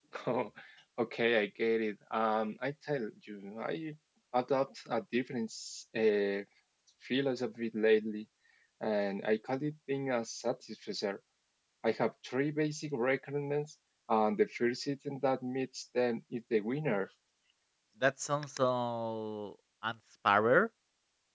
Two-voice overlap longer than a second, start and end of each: none

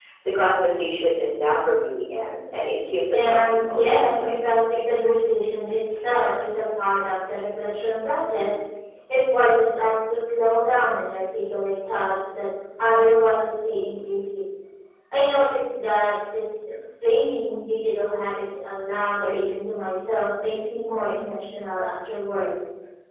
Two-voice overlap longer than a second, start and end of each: 3.1-4.5

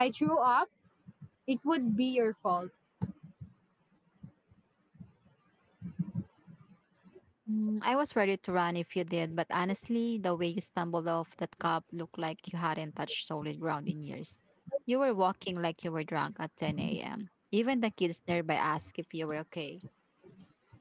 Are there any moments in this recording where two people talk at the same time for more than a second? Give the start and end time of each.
none

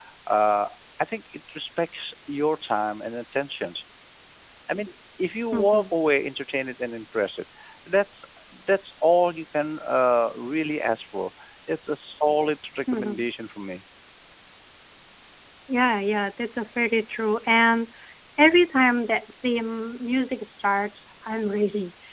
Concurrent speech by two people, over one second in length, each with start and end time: none

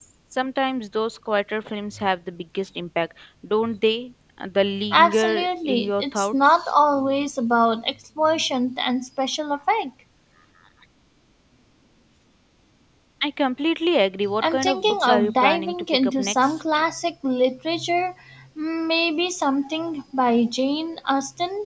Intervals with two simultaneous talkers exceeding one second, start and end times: 4.9-6.7, 14.4-16.8

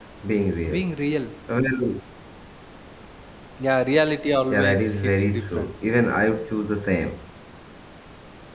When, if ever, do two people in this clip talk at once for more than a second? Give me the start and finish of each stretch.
4.5-5.7

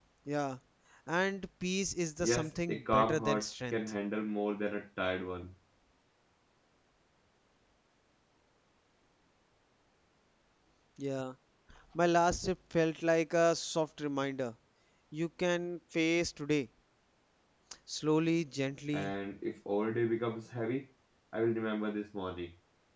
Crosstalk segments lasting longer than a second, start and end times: 2.2-3.8

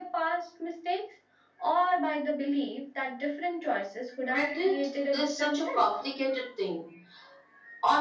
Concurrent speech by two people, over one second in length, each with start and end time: 4.3-5.9

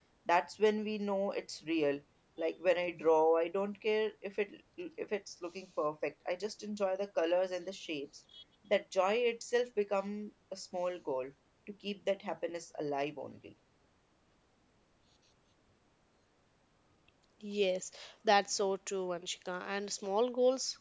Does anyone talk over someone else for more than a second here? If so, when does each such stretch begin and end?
none

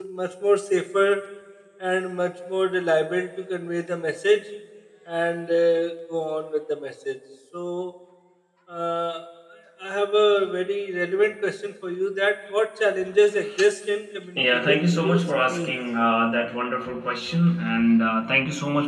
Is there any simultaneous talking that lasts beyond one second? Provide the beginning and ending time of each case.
14.4-15.8

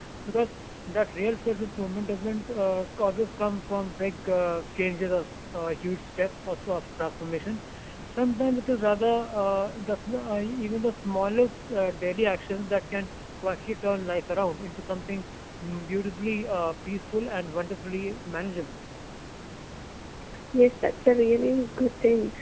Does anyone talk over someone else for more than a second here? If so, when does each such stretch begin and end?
none

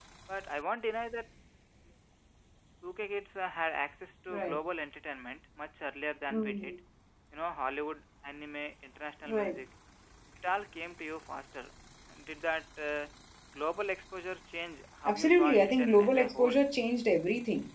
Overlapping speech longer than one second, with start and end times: 15.0-16.7

